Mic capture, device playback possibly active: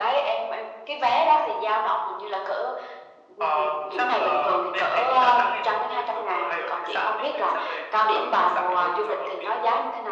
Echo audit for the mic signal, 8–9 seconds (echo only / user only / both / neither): echo only